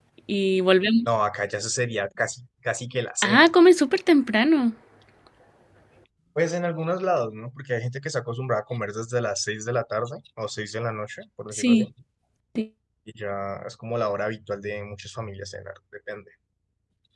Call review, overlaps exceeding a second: none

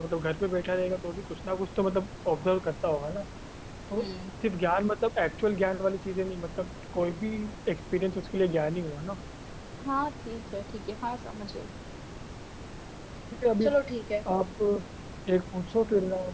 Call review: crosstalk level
none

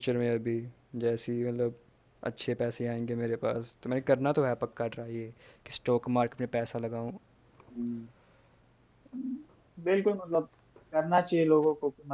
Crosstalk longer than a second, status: none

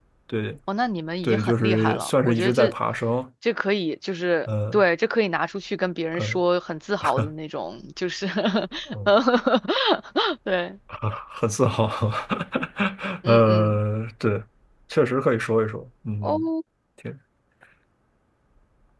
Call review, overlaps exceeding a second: present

